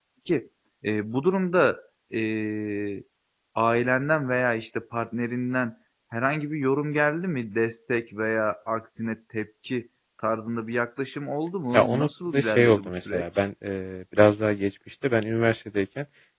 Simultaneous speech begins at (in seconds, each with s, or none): 11.7 s